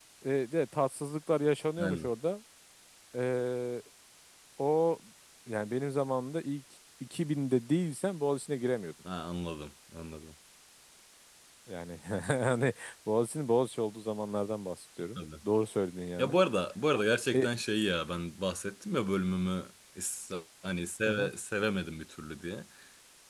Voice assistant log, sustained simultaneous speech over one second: none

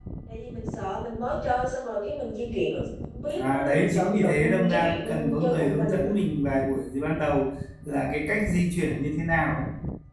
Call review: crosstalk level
present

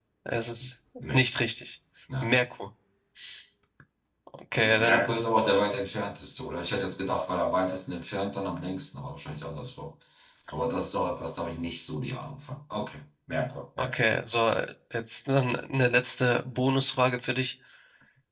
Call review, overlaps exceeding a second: none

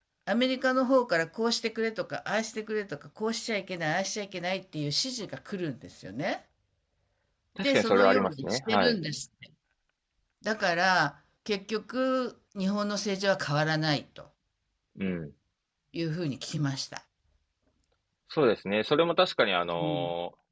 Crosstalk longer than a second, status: present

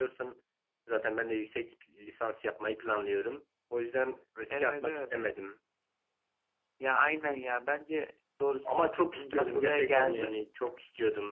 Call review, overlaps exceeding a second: present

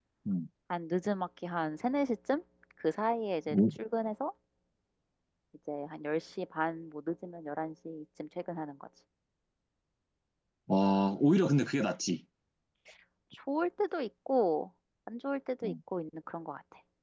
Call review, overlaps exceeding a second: none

